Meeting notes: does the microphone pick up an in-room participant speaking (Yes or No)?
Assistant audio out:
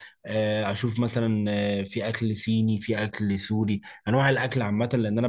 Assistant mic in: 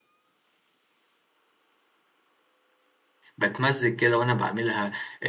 Yes